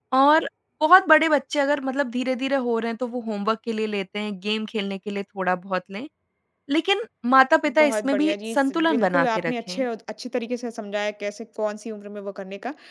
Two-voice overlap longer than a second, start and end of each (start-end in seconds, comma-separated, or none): 7.7-9.8